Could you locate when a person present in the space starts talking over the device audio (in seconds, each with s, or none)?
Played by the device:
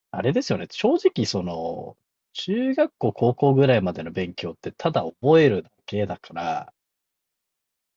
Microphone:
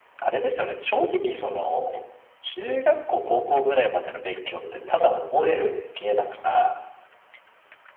none